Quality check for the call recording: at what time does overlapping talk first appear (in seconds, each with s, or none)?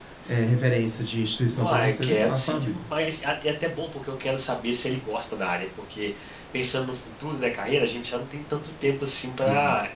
1.5 s